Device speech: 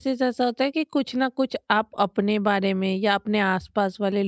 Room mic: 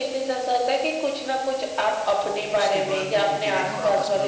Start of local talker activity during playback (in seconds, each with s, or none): 2.2 s